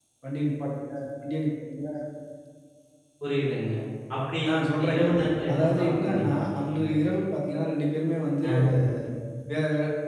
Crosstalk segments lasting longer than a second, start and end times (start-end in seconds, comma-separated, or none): 5.5-6.7